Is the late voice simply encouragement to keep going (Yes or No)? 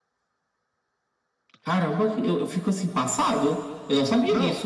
No